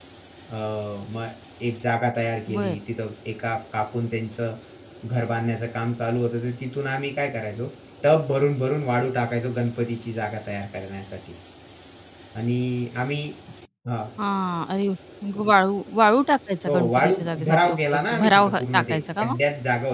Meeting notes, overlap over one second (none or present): present